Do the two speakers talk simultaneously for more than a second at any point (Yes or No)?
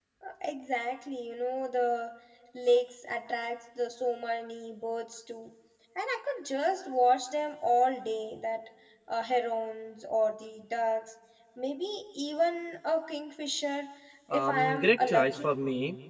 Yes